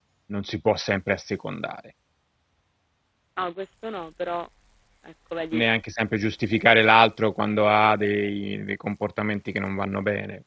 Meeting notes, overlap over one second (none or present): none